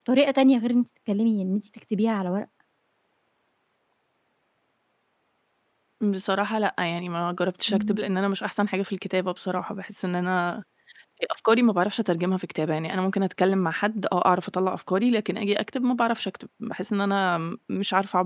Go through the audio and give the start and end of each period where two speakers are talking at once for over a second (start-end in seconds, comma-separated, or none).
none